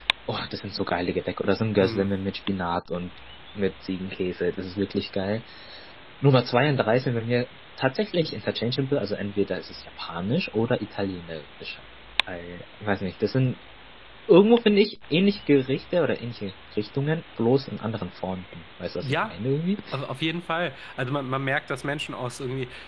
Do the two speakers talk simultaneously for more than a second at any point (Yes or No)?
No